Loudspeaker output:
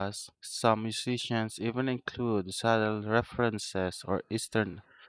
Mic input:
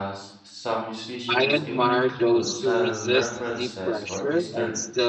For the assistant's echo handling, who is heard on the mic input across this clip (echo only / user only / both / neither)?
both